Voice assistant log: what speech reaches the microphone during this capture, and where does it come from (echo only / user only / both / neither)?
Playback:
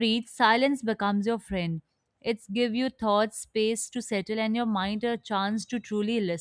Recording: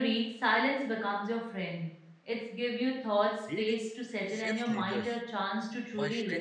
both